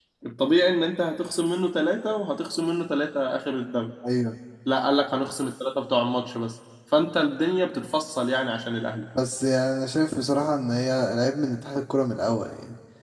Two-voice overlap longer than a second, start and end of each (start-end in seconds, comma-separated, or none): none